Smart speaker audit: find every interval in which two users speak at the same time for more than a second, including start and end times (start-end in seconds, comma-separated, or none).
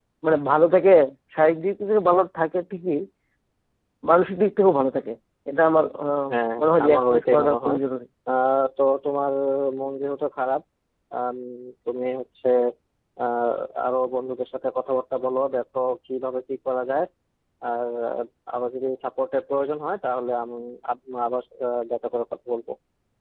6.2-7.8